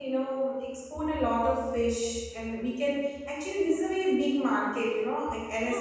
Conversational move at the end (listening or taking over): taking over